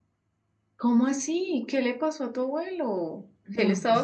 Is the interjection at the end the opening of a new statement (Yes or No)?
No